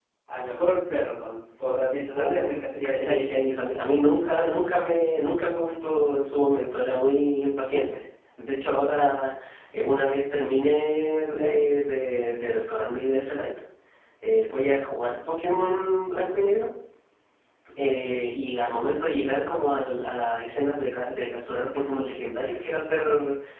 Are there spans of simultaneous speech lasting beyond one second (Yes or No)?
Yes